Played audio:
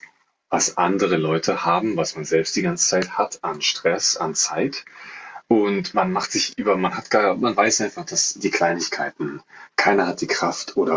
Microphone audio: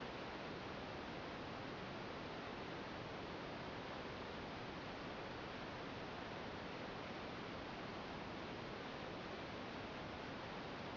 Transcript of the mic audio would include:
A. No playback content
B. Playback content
A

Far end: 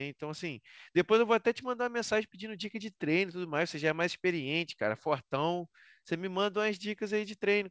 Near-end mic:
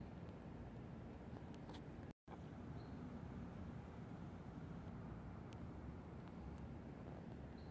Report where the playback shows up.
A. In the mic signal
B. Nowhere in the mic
B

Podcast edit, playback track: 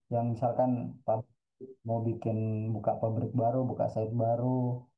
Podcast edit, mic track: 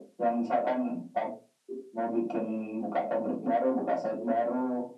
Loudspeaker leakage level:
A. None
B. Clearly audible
B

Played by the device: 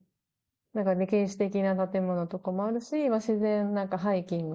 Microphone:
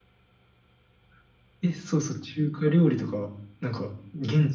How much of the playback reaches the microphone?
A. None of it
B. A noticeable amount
A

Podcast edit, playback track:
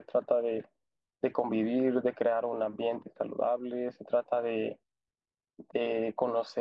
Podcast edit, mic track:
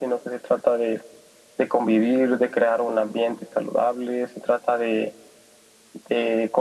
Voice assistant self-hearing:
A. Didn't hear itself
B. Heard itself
B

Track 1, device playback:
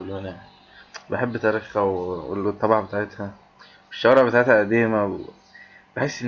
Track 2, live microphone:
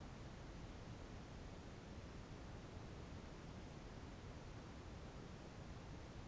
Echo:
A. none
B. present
A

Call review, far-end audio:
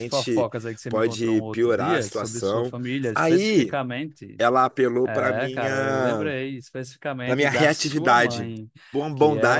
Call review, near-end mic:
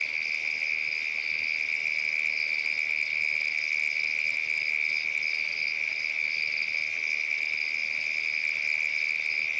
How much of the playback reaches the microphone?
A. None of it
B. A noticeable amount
A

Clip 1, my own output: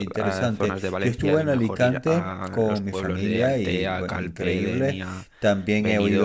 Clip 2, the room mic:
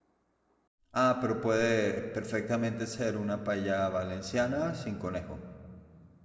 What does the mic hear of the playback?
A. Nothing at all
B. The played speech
A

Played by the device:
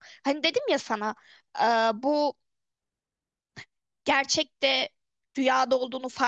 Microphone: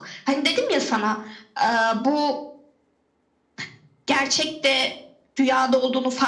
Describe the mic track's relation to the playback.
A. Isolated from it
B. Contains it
B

